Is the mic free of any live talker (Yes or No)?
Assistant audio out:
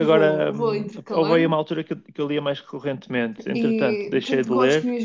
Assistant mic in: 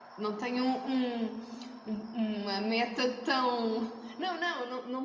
No